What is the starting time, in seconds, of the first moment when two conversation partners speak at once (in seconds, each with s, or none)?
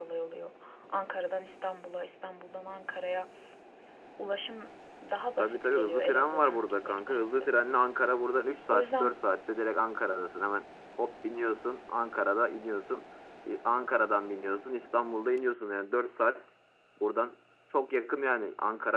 5.4 s